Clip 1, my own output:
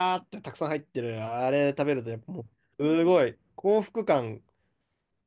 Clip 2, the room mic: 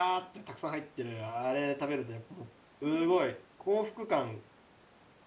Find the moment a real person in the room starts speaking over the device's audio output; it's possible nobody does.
none

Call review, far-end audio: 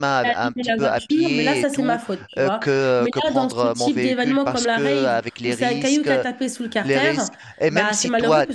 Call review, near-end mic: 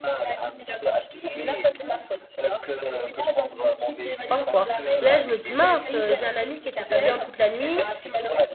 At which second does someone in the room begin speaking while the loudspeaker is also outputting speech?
4.2 s

